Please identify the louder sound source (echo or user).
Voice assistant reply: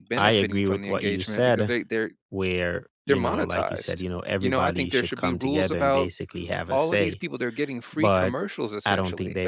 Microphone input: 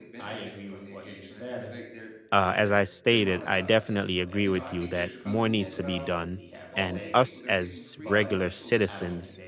user